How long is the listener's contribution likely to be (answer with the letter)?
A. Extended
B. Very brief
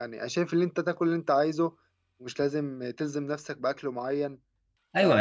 A